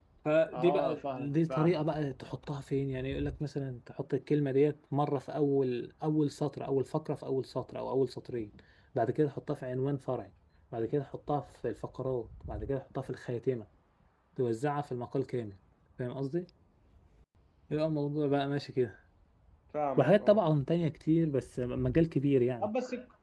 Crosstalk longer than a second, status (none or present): present